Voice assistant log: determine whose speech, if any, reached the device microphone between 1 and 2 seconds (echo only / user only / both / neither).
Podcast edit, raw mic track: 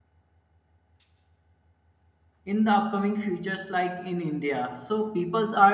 neither